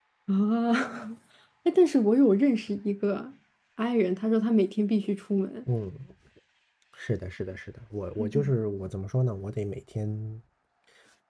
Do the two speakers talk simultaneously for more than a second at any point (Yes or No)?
No